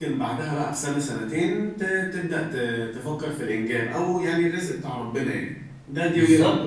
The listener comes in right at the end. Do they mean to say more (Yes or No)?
Yes